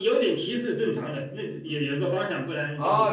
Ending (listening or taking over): taking over